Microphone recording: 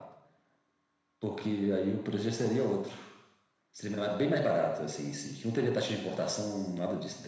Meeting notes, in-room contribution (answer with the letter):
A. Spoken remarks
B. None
B